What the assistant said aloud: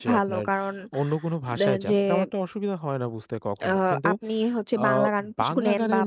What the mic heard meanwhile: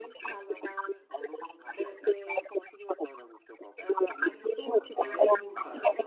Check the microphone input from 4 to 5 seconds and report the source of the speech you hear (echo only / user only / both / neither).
both